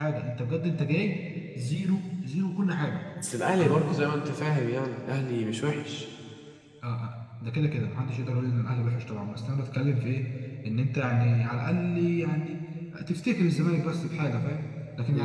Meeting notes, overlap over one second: none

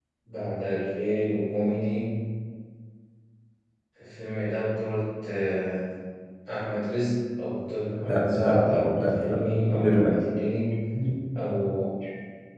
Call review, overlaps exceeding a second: present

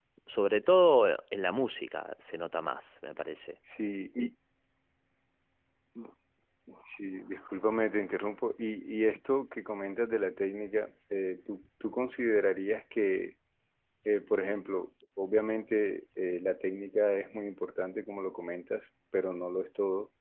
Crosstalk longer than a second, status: none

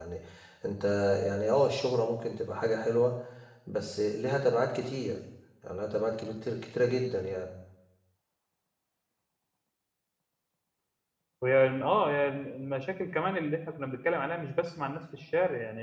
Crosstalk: none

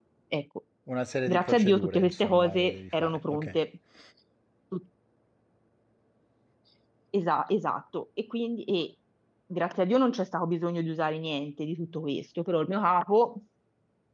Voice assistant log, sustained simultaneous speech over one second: present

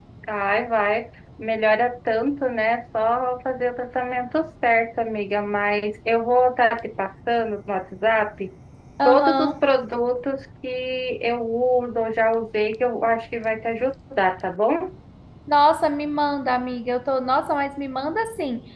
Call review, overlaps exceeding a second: none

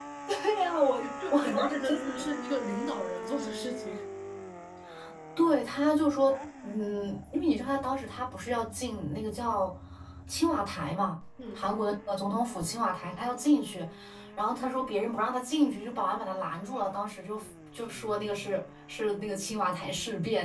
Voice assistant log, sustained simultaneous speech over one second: present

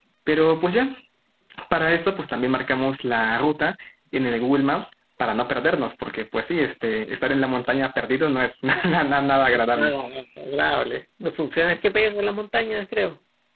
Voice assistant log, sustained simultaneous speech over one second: none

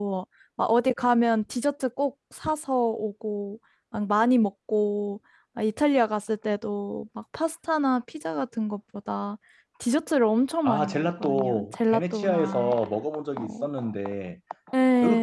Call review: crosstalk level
present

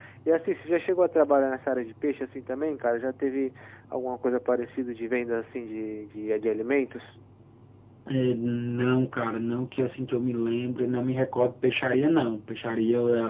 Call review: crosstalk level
none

